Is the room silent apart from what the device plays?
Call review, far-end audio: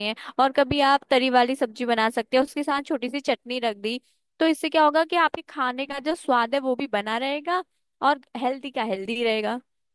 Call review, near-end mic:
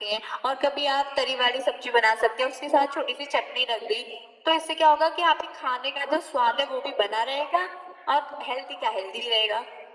Yes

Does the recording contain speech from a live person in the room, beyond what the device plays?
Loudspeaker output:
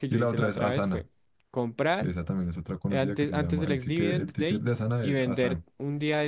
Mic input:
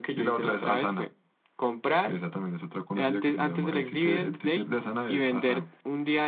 No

